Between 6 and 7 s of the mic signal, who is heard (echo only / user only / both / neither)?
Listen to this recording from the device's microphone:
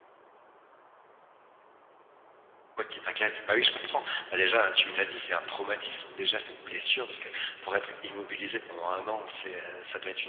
echo only